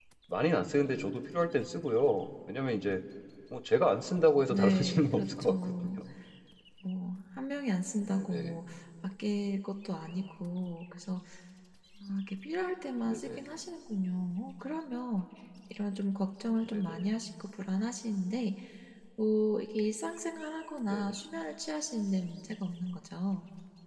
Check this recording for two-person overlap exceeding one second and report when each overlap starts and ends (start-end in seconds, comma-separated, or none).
4.5-5.9